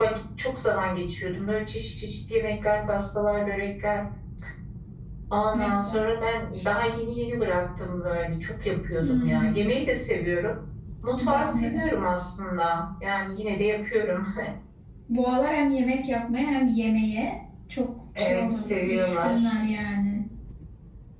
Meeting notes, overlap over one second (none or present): present